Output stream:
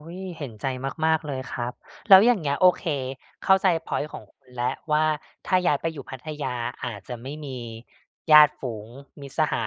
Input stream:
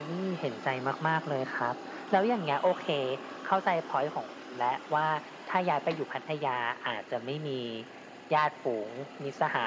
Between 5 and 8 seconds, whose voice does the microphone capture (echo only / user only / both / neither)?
echo only